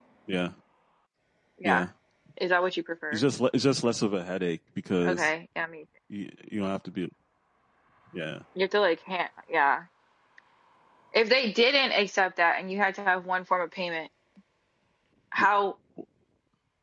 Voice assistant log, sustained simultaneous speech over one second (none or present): none